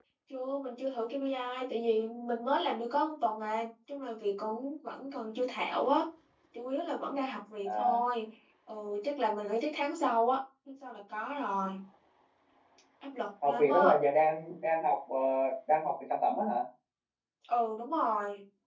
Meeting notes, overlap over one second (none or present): none